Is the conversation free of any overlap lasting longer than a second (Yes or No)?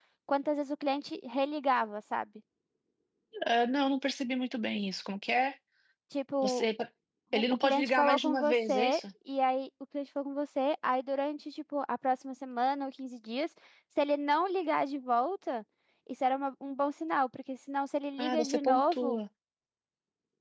No